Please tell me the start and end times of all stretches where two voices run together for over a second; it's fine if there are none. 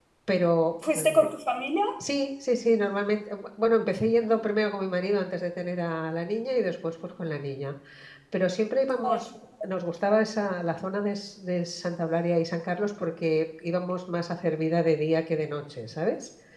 none

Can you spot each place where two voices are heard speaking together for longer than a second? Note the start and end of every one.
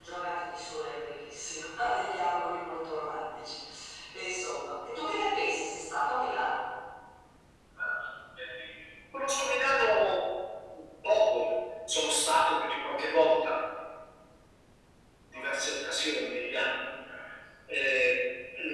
none

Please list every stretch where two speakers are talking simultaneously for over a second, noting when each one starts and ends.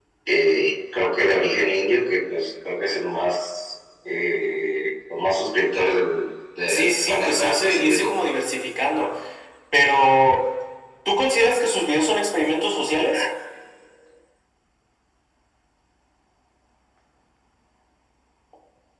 6.7-8.1

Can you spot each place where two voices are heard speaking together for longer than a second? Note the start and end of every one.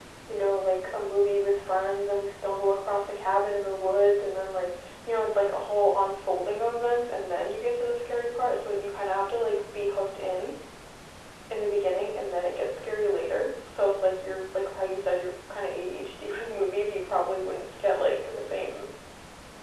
none

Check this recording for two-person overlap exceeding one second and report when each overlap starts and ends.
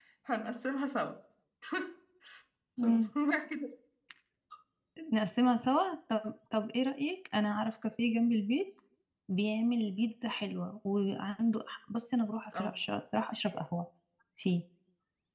none

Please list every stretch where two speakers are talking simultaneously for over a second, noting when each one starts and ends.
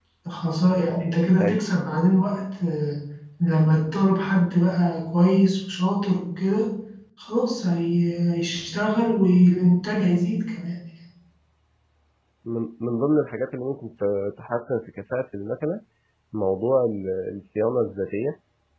none

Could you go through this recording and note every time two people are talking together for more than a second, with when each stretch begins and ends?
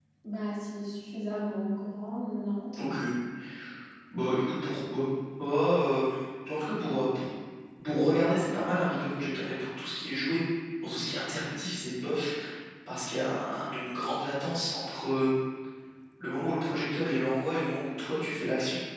none

